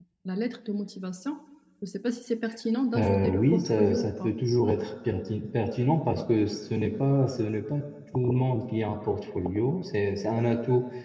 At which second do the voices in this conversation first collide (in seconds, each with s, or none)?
2.9 s